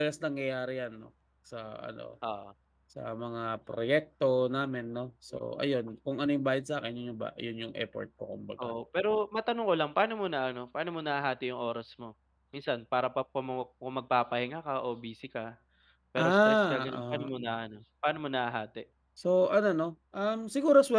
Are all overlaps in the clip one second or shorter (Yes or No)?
No